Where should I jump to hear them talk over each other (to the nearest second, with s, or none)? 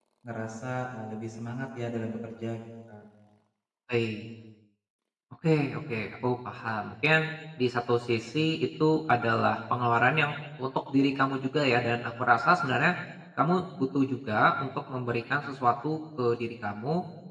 none